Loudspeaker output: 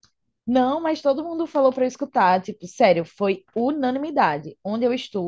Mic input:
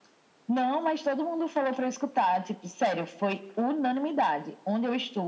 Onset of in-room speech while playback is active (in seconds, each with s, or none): none